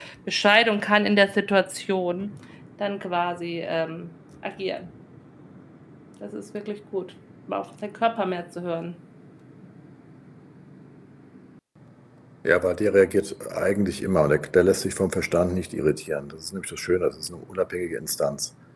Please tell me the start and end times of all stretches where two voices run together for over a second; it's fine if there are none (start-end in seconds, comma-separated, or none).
none